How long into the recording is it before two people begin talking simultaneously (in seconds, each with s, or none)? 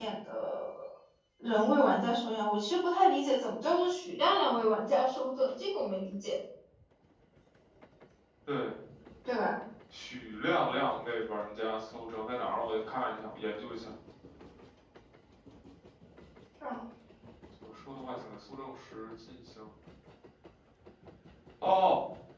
none